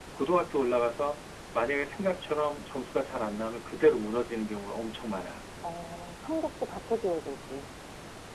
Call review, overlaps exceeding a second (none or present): none